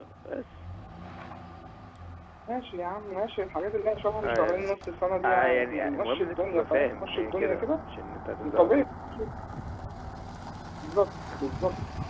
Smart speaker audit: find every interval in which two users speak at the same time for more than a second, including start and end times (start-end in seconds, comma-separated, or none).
5.2-7.8